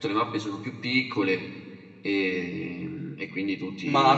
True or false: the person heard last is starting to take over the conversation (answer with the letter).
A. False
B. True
B